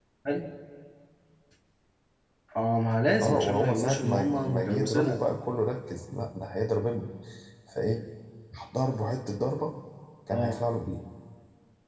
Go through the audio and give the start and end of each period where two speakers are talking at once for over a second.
3.2-5.2

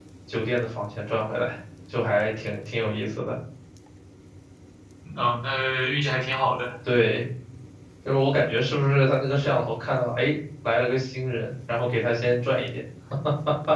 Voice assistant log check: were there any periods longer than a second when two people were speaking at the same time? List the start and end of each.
none

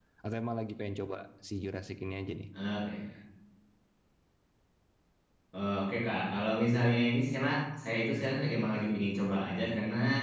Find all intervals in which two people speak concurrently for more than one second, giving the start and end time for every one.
none

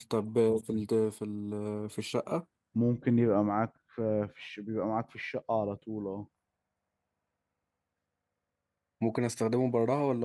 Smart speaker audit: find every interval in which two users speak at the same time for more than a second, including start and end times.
none

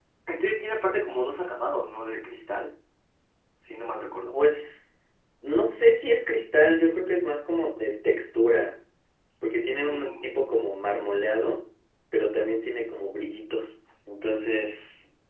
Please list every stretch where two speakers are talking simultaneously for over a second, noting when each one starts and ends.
none

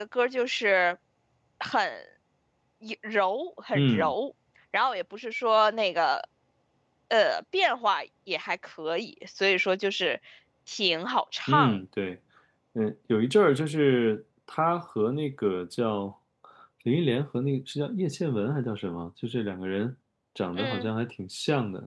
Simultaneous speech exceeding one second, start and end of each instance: none

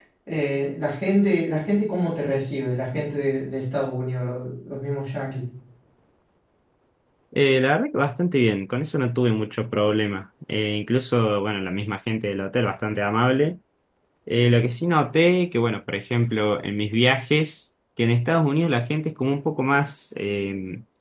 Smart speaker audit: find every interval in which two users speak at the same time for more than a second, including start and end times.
none

